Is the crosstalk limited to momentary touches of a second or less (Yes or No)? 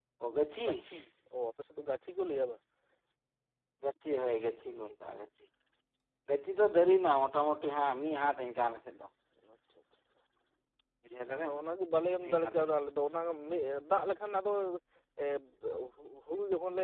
Yes